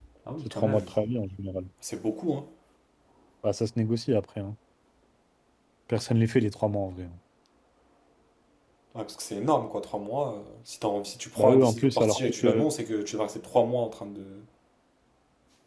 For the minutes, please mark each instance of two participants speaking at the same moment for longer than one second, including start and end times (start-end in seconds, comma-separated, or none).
11.4-12.6